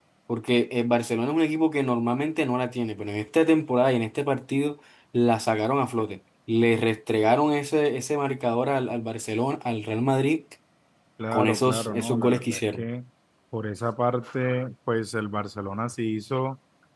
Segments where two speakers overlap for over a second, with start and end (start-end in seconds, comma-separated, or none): 11.3-12.8